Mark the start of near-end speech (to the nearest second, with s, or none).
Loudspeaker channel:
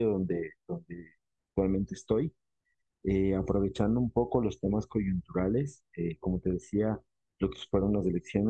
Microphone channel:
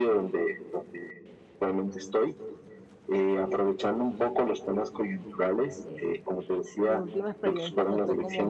6 s